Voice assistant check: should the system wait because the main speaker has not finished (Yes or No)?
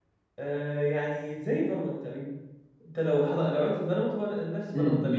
No